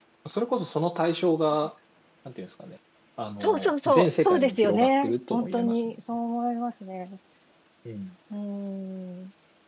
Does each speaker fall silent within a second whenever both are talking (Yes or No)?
No